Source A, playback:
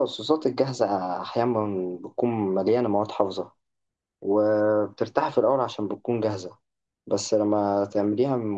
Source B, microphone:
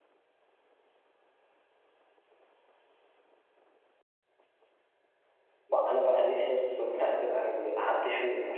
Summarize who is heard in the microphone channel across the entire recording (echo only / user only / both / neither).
user only